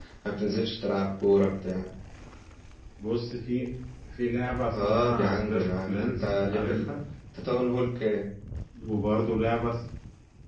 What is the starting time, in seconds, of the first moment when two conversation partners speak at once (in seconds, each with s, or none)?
4.7 s